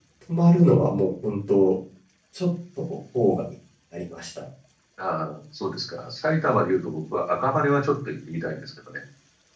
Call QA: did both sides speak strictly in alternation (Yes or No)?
Yes